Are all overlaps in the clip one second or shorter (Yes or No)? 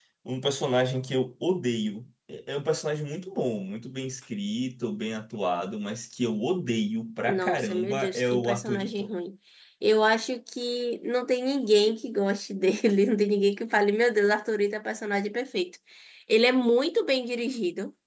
No